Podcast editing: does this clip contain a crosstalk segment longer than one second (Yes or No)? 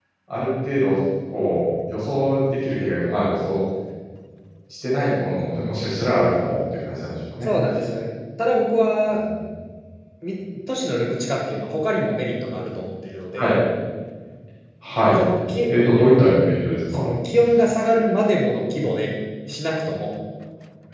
No